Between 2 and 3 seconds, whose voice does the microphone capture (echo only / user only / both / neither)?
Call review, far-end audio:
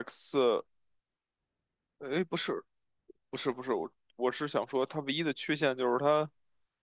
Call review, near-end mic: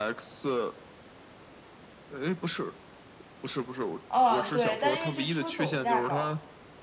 echo only